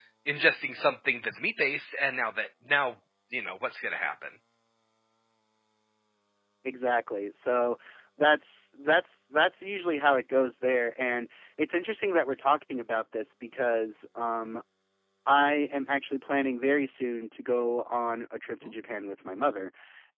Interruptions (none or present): none